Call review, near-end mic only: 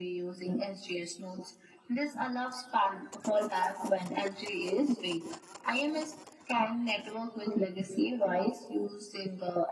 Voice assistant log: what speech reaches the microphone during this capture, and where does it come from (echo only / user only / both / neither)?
echo only